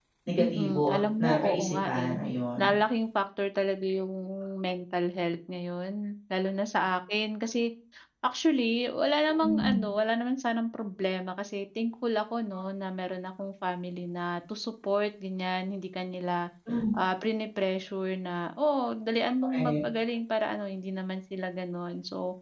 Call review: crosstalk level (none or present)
present